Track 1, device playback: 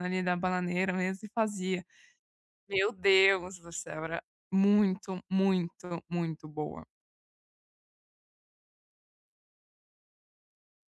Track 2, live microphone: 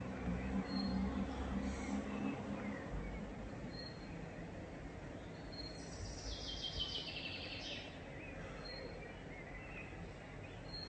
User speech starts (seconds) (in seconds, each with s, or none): none